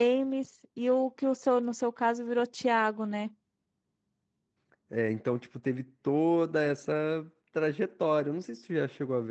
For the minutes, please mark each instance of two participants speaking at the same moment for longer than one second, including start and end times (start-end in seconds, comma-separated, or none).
none